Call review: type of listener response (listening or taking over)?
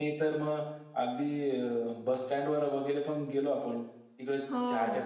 listening